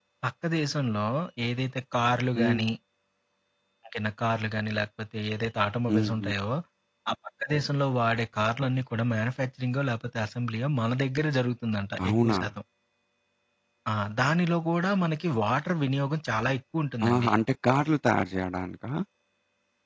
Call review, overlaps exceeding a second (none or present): none